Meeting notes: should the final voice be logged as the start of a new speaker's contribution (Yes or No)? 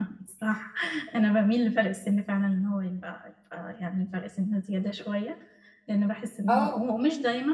No